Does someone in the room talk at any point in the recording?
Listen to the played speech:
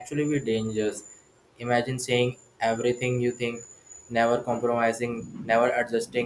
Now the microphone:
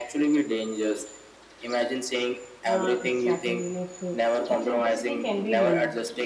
Yes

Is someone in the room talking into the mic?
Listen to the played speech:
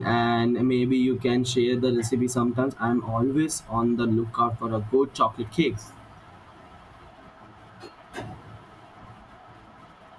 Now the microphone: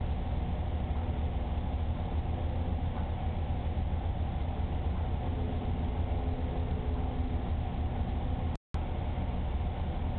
No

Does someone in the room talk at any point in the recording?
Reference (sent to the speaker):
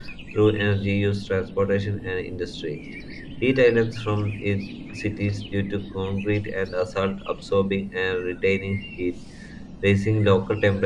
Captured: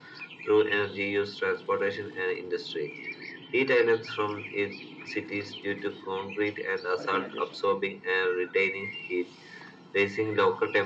Yes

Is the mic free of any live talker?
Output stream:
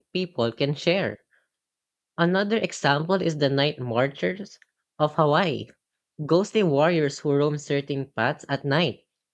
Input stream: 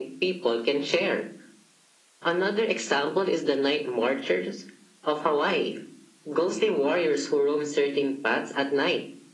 Yes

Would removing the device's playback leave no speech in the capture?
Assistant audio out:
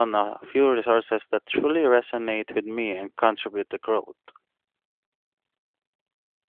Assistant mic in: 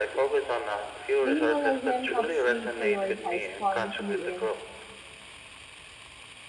No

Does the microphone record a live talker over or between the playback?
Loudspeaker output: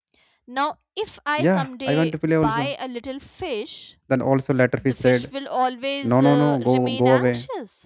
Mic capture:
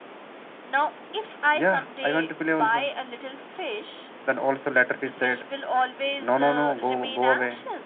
No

